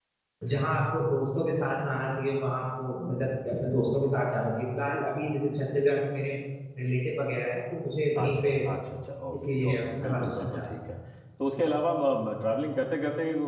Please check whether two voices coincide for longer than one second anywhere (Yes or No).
Yes